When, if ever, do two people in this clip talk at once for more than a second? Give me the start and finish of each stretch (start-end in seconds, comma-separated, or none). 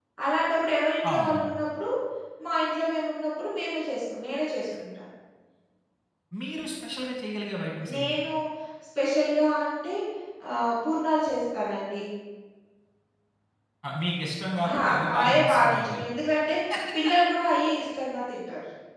14.7-16.1